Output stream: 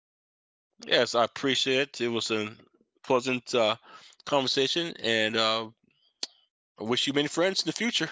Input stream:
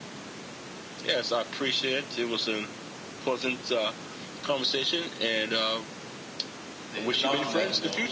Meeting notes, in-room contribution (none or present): present